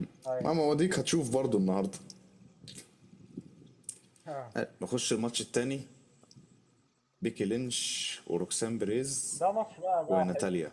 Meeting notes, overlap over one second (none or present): none